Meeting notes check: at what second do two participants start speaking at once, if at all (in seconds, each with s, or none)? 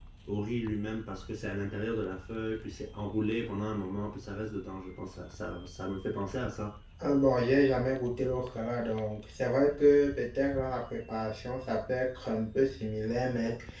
none